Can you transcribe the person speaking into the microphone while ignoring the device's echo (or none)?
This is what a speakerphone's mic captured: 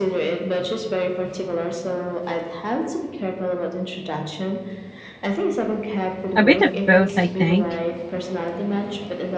A bit of both, I think.